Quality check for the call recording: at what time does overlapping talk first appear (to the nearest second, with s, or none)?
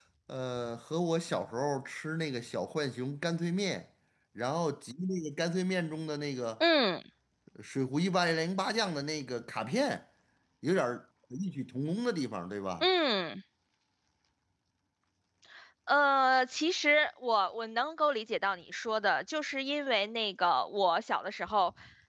none